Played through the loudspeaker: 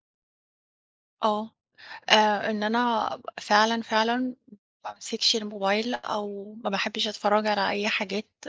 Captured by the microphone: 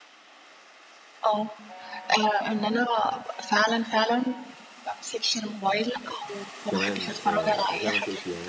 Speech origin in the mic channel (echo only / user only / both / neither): both